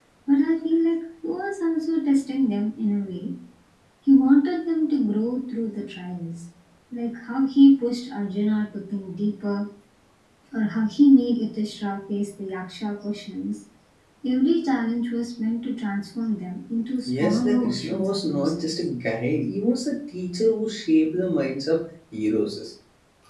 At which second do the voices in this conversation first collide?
17 s

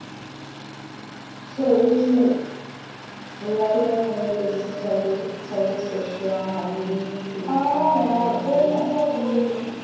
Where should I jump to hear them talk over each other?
7 s

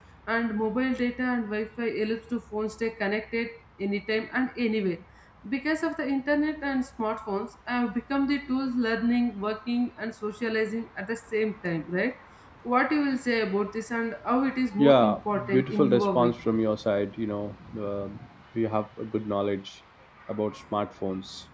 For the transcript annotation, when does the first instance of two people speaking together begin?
15 s

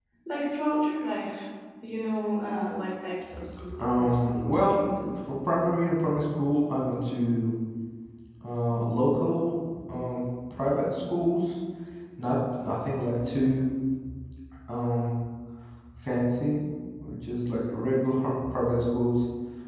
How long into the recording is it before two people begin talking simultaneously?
4 s

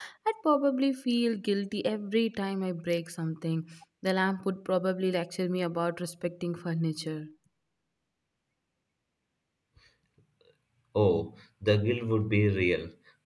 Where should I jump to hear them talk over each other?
none

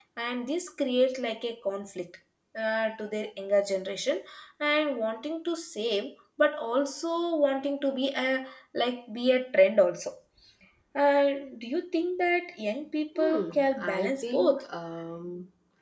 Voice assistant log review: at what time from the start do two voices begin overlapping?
13 s

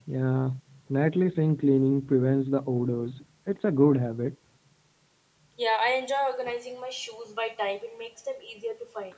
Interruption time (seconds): none

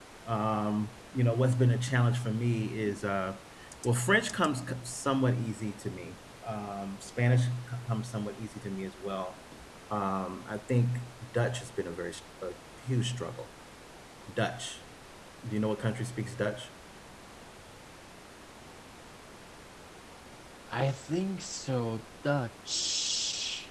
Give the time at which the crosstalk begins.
none

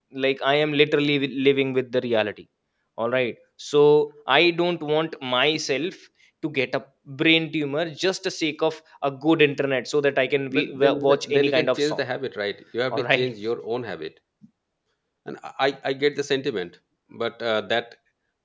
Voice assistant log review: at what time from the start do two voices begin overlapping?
10 s

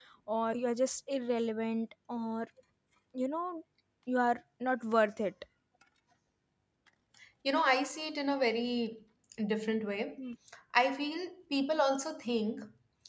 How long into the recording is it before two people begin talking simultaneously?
none

